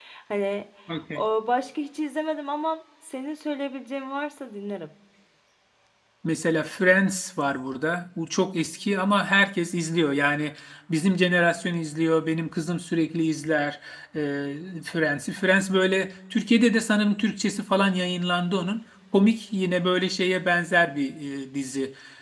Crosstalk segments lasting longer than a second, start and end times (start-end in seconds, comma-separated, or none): none